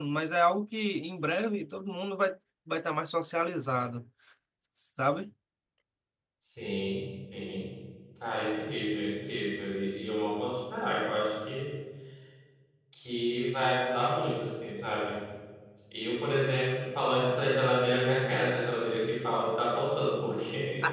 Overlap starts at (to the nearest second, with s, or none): none